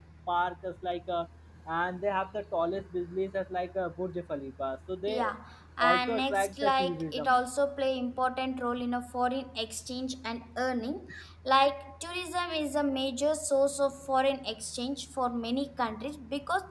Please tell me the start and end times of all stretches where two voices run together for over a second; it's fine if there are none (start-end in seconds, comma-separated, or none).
5.8-7.4